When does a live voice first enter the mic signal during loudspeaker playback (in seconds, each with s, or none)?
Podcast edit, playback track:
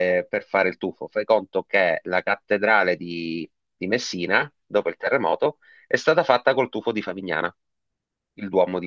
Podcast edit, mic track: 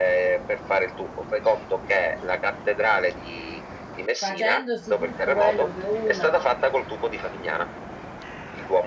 4.2 s